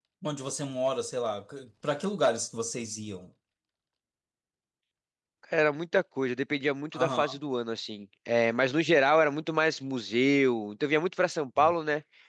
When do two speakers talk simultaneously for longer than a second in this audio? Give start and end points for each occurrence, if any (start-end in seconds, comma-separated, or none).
none